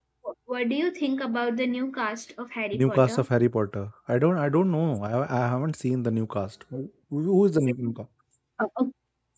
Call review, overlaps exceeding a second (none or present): none